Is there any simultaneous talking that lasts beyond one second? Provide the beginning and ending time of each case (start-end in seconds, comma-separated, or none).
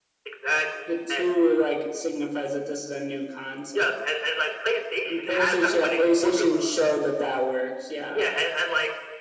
5.1-6.7